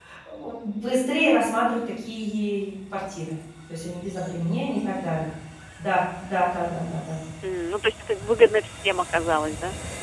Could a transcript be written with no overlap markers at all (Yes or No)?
Yes